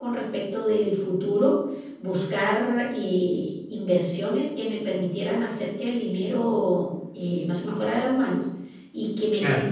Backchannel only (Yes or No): Yes